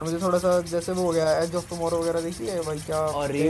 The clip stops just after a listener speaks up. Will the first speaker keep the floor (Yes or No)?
No